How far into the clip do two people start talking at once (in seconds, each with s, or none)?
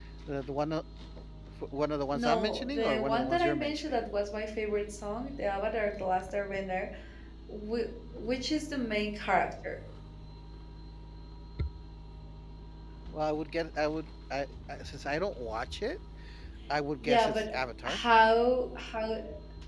2.1 s